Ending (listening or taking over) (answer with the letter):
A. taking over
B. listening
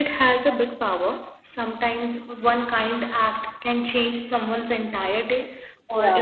B